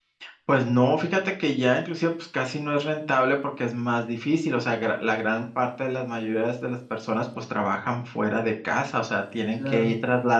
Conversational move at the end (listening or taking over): listening